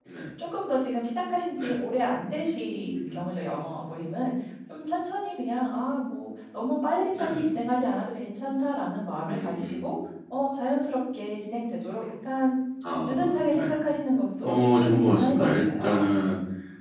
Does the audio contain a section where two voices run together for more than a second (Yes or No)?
Yes